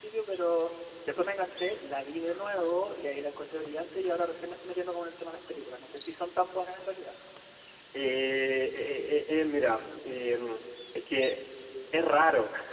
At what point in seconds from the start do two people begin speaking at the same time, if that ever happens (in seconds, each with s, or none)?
none